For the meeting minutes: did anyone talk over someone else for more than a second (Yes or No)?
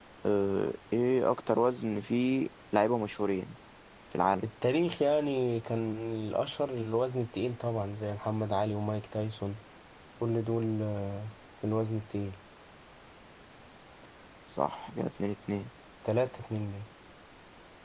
No